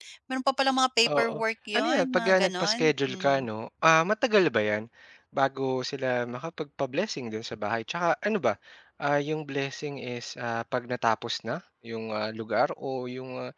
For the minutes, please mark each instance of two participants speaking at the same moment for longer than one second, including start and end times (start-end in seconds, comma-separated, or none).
1.8-3.4